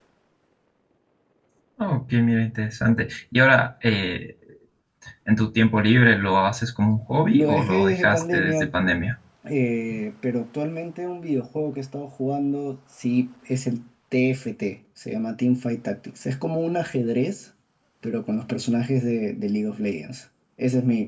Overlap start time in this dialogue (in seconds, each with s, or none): 7.3 s